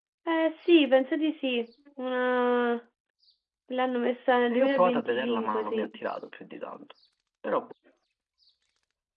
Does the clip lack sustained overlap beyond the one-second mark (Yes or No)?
No